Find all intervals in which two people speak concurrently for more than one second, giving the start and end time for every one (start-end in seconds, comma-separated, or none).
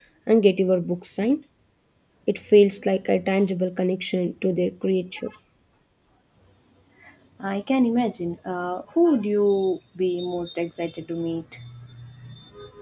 none